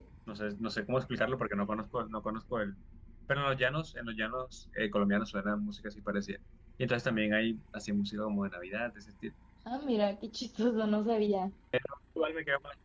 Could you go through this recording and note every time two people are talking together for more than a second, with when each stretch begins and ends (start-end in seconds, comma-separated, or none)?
none